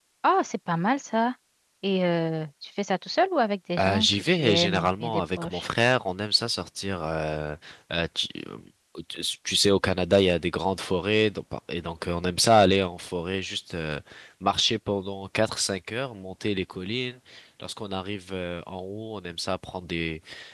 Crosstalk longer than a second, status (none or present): present